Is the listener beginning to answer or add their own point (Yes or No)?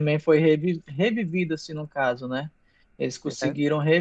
No